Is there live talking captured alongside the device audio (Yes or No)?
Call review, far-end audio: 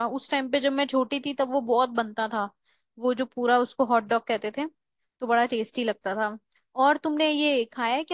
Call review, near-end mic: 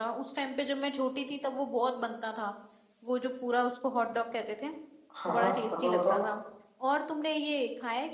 Yes